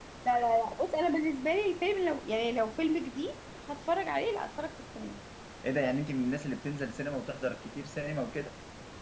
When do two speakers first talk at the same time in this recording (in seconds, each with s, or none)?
none